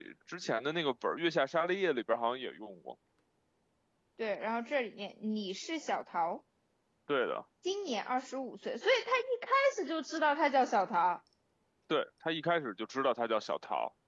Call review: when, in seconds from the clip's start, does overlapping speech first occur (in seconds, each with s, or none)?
none